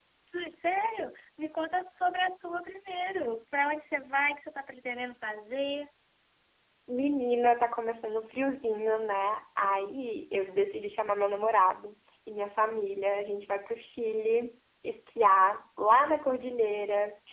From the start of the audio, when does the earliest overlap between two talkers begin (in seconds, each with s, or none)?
none